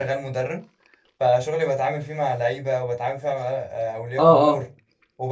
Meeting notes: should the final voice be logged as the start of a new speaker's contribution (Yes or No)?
No